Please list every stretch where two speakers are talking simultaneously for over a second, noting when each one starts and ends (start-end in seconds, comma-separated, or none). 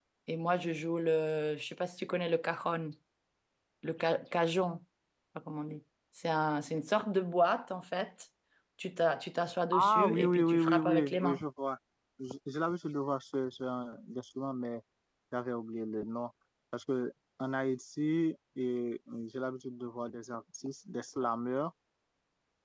9.7-11.4